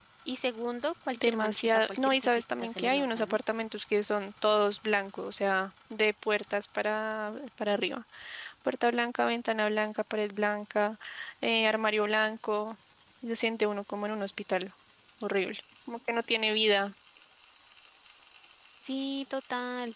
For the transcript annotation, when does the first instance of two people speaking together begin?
1 s

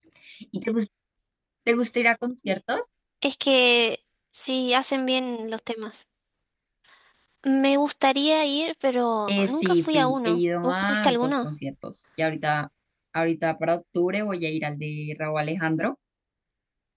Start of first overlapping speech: 9 s

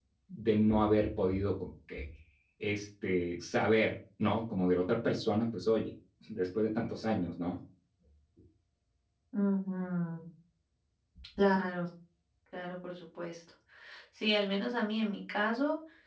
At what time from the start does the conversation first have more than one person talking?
none

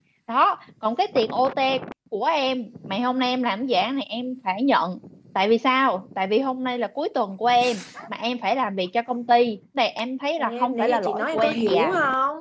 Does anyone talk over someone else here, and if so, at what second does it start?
10 s

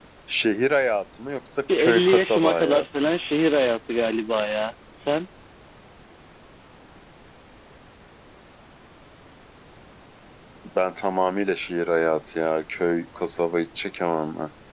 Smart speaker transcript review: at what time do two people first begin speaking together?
2 s

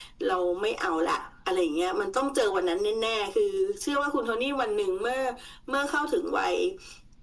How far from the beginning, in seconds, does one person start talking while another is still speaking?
none

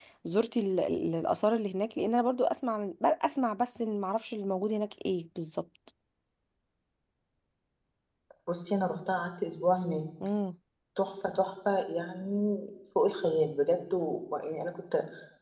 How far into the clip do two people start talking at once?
none

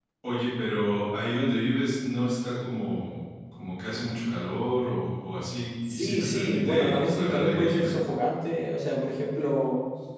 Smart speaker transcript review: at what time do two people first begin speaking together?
6 s

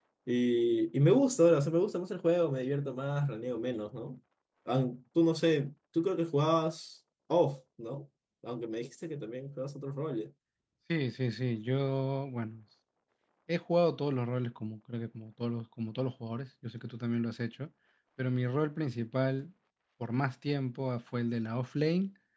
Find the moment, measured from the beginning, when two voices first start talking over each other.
none

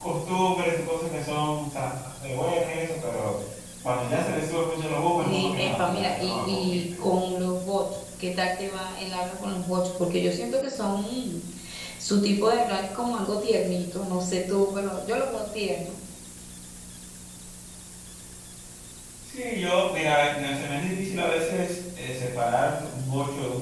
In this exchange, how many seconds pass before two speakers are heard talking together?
5 s

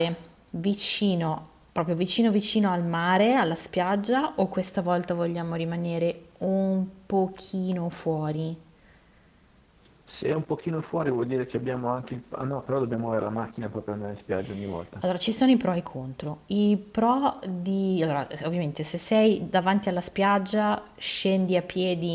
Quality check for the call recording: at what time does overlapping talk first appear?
none

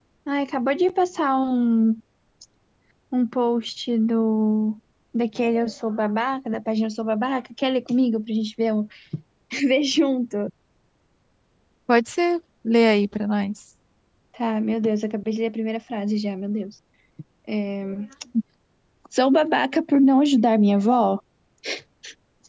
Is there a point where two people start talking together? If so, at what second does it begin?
none

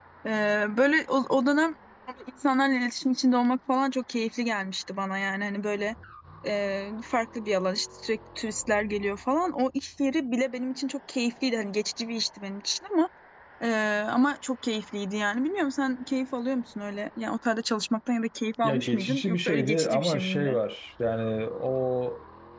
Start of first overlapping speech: 19 s

